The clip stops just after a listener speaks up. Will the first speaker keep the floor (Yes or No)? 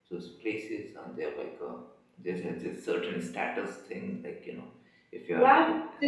No